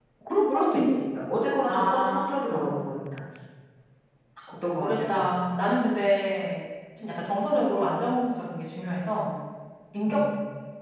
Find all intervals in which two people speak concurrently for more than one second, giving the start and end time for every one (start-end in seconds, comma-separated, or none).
1.7-3.0